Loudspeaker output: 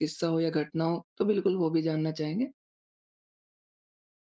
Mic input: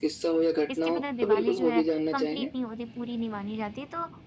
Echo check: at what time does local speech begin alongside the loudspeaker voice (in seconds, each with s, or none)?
0.7 s